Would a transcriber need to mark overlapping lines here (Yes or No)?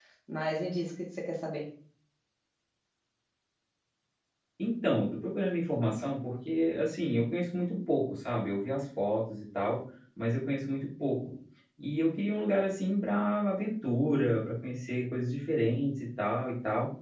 No